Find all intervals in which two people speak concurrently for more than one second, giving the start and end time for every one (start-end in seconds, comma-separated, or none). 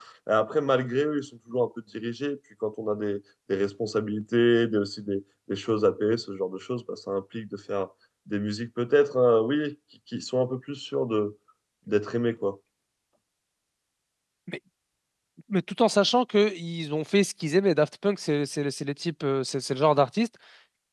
none